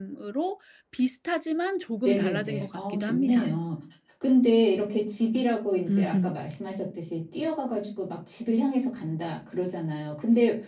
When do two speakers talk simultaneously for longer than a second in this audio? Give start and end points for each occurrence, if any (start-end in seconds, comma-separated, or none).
2.0-3.5